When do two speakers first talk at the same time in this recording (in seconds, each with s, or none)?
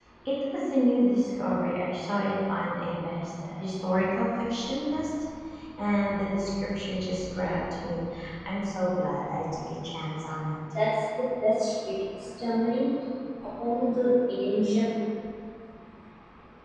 none